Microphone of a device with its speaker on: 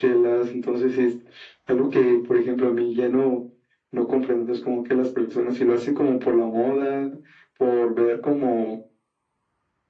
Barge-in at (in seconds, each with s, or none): none